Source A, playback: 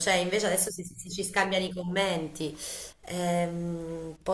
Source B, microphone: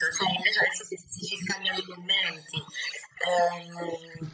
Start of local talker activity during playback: none

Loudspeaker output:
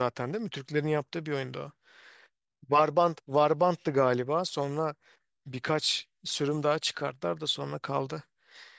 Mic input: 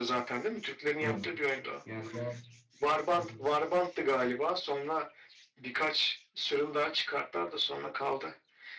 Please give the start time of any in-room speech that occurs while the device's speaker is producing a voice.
1.0 s

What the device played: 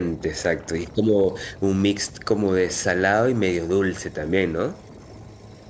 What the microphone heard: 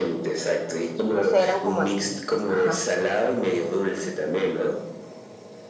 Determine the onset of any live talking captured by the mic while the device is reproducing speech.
1.1 s

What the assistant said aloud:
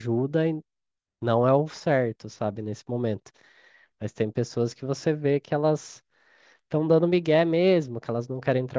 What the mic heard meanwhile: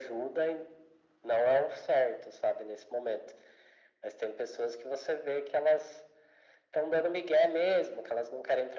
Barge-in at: none

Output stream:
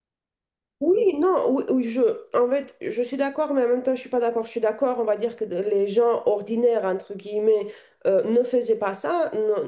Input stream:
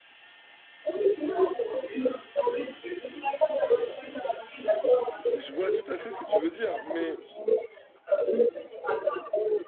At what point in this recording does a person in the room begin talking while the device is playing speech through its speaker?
5.3 s

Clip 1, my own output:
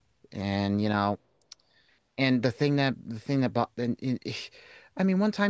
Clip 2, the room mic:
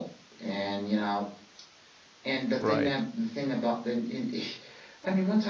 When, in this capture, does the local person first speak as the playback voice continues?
2.6 s

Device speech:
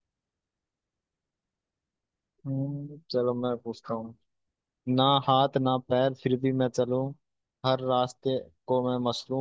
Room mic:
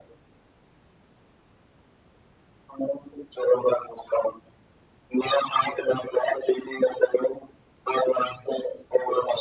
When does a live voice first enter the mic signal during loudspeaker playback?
none

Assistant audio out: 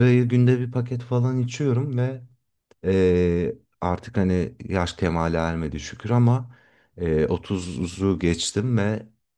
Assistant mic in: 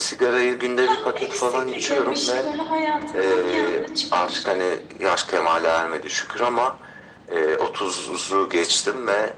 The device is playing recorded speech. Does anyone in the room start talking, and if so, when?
0.8 s

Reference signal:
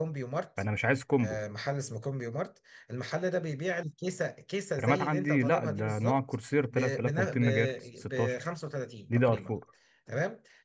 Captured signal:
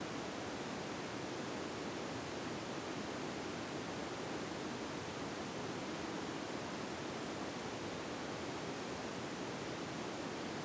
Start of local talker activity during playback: none

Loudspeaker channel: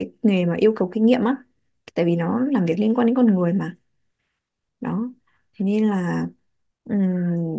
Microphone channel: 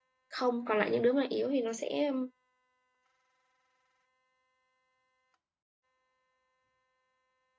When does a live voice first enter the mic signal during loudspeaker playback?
0.3 s

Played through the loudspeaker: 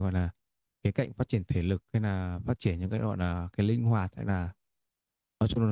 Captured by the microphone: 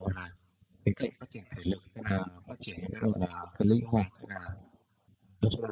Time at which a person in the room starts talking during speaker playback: none

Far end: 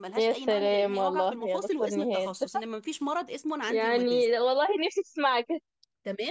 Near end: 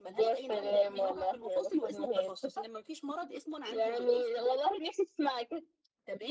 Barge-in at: none

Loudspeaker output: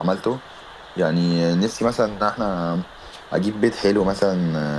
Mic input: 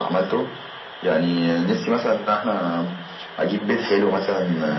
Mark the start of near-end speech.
none

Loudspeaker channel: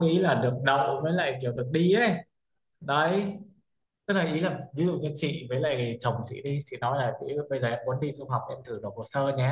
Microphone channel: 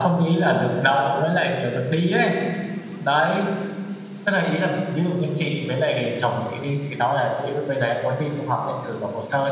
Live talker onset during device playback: none

